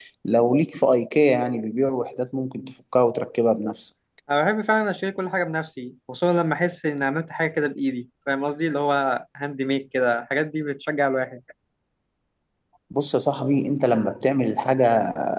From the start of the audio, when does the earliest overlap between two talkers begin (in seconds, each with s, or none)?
none